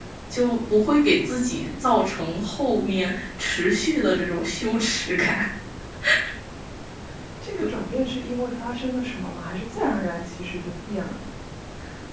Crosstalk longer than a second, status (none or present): none